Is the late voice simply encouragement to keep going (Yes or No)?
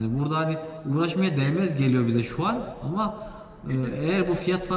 Yes